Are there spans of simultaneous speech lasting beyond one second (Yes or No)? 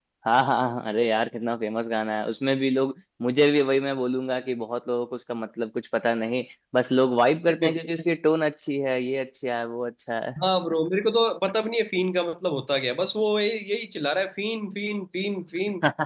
No